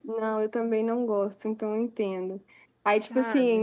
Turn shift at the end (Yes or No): No